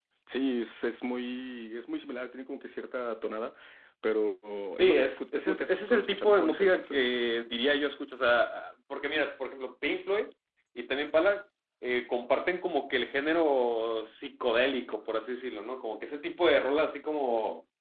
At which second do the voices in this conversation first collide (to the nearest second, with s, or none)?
5 s